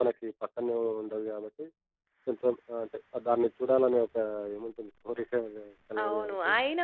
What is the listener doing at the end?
taking over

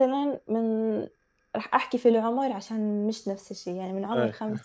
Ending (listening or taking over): listening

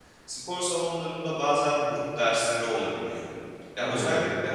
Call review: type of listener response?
listening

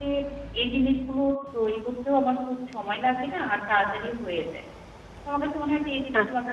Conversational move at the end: listening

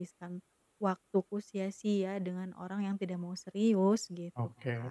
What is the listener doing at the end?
taking over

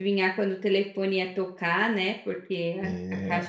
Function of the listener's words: listening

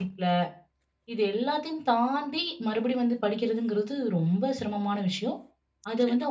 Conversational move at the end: listening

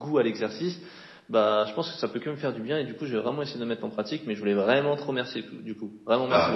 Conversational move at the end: taking over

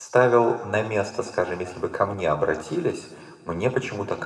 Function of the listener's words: listening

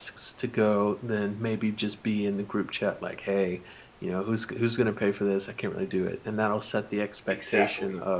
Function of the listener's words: listening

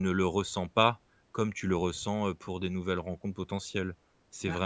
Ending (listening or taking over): taking over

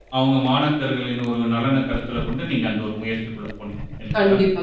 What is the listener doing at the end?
taking over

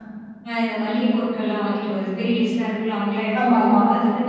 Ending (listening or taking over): listening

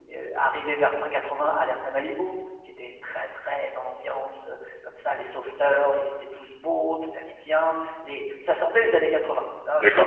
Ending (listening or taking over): taking over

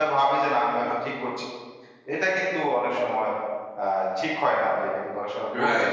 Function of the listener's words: taking over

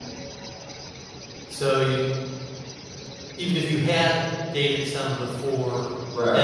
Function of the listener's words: listening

